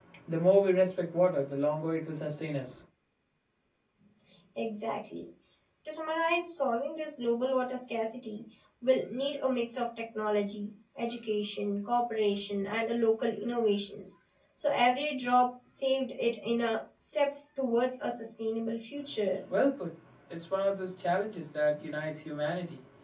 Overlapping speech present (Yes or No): No